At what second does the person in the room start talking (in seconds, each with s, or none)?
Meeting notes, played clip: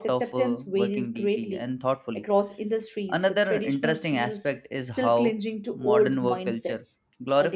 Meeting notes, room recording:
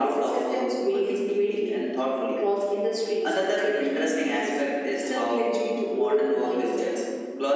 none